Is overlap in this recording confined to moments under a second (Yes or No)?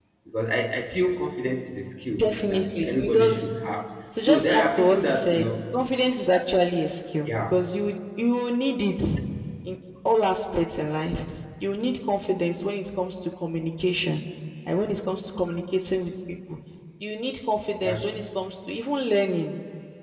No